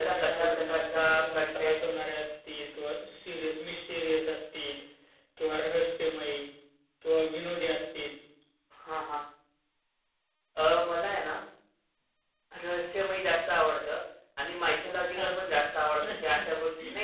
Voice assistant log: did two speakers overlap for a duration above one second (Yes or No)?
Yes